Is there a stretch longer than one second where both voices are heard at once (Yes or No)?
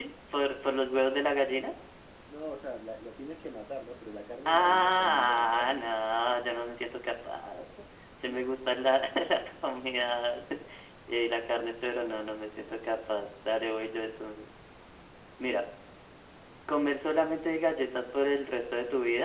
Yes